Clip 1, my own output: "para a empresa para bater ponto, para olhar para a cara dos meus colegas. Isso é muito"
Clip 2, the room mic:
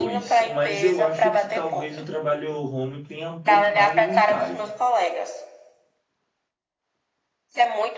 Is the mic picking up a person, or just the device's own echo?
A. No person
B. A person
B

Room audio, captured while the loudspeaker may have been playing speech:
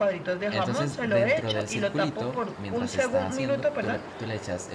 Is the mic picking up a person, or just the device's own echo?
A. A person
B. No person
A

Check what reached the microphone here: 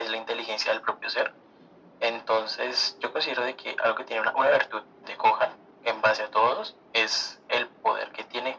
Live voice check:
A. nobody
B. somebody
A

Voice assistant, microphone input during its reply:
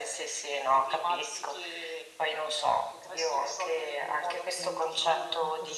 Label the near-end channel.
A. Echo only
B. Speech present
B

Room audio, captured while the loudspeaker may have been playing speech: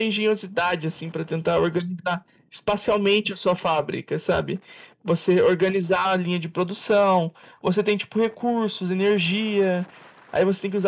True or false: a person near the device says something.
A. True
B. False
B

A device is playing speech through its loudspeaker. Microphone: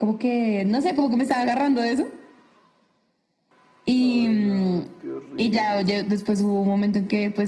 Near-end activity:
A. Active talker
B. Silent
A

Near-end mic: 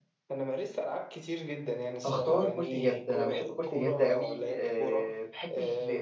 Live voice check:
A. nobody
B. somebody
B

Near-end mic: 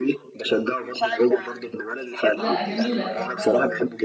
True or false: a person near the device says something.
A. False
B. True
B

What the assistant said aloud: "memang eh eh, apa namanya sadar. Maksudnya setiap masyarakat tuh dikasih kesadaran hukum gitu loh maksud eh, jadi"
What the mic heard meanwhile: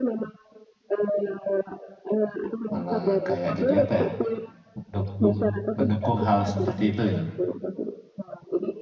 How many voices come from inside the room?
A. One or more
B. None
A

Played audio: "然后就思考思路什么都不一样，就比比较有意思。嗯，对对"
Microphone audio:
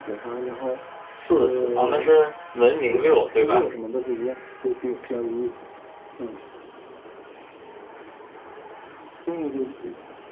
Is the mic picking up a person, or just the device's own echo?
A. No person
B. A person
B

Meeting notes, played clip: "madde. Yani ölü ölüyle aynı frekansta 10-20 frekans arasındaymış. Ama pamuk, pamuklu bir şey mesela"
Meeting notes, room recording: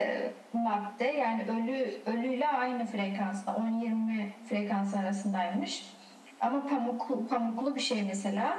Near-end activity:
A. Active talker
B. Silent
B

